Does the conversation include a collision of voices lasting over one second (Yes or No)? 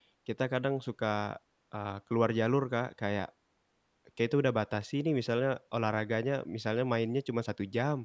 No